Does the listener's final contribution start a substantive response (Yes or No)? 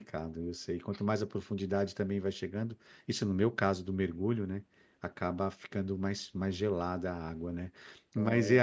No